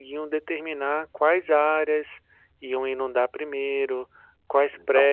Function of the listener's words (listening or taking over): listening